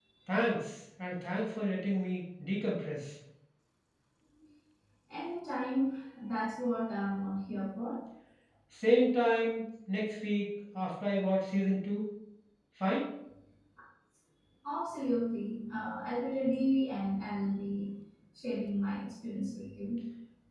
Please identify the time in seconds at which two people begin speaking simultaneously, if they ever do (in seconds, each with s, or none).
none